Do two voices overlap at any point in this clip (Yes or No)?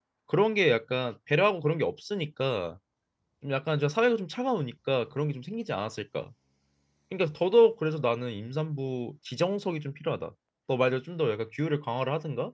No